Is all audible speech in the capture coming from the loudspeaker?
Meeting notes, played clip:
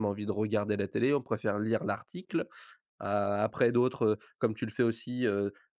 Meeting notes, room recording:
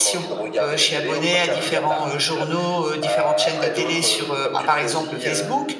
No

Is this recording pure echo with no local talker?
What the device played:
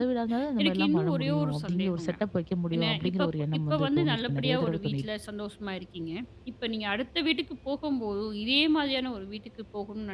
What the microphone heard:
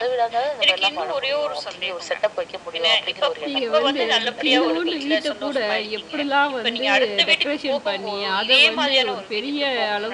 No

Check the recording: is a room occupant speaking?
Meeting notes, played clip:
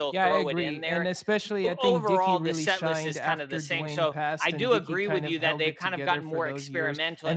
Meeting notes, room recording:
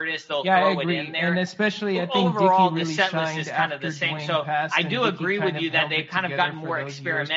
No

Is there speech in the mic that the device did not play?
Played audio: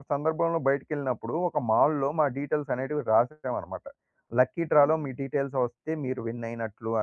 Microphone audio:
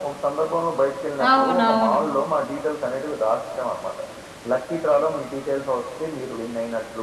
Yes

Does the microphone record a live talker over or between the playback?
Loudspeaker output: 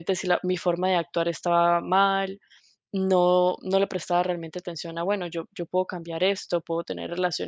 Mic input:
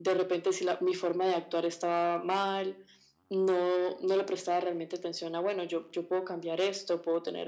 No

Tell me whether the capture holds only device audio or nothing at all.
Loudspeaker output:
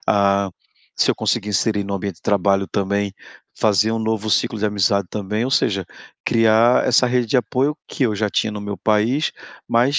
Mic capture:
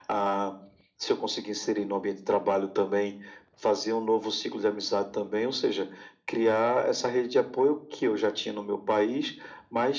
Yes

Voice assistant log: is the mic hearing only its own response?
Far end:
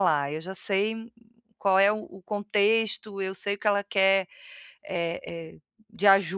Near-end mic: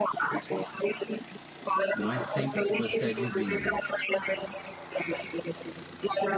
No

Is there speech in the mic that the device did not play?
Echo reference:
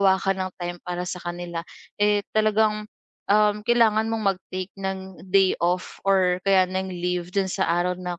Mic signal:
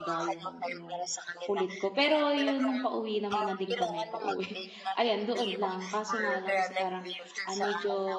Yes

